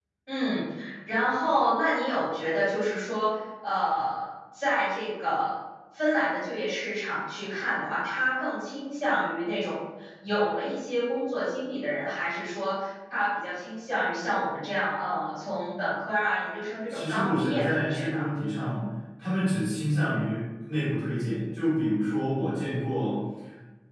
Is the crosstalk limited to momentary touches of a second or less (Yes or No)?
No